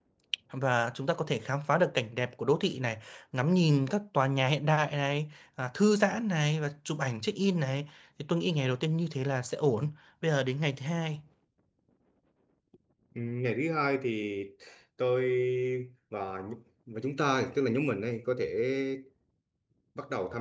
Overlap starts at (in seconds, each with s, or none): none